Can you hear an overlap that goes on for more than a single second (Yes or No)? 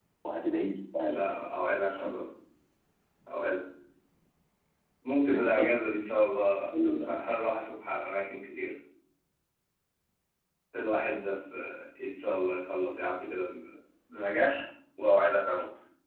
No